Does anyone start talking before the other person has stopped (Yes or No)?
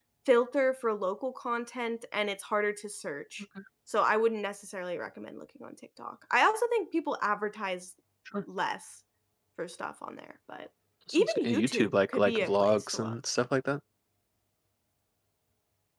Yes